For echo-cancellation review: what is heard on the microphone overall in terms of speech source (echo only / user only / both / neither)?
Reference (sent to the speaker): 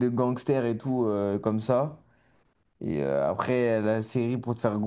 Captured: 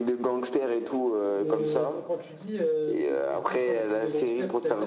both